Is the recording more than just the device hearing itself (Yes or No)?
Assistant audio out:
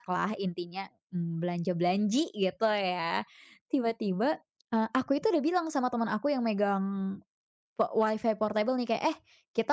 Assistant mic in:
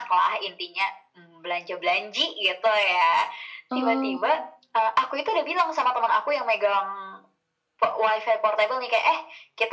Yes